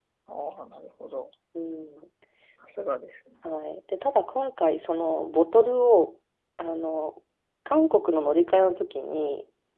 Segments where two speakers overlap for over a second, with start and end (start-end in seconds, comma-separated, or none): none